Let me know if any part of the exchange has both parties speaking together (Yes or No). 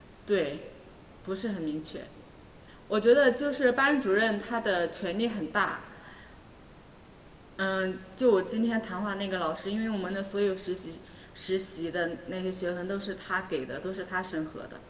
No